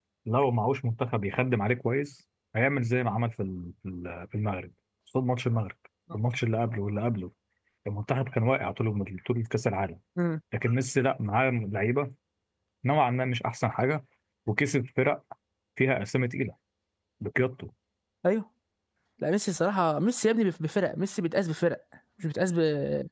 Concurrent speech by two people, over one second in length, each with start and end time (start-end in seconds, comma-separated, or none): none